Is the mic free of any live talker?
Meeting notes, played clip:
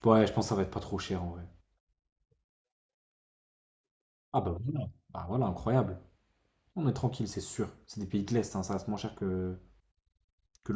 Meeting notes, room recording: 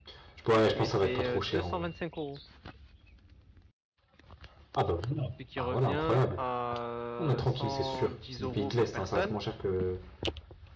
No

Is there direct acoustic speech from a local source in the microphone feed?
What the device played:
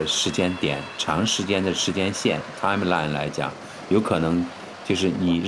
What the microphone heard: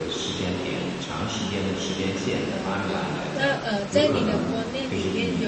Yes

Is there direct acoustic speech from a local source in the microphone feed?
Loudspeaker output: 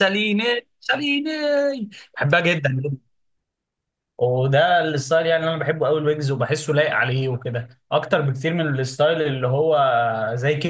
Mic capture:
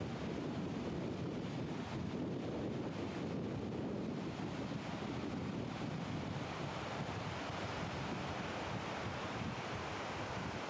No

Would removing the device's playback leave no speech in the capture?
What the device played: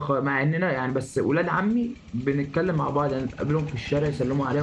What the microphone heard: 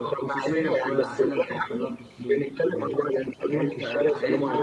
No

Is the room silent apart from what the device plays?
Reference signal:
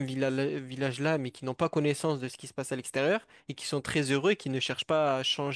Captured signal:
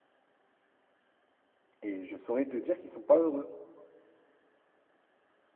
No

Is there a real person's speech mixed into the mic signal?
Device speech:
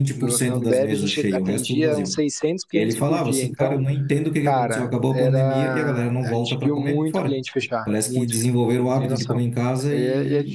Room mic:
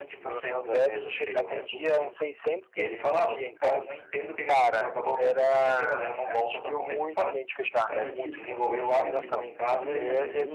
Yes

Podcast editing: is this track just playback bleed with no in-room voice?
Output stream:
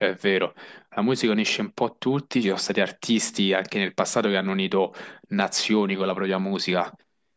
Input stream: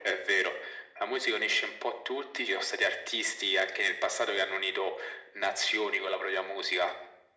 Yes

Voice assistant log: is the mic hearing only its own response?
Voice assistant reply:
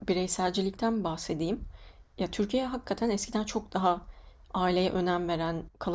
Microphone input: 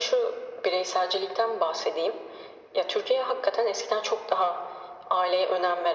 Yes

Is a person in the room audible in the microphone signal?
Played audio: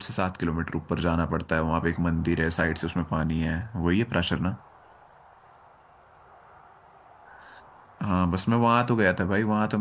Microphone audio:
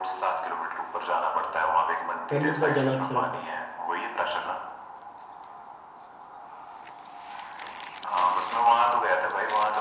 Yes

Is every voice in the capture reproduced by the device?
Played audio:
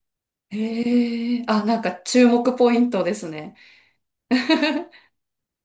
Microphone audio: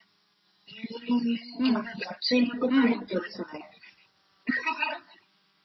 No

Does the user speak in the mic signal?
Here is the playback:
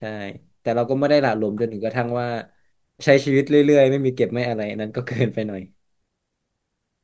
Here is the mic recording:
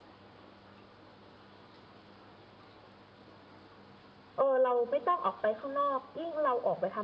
Yes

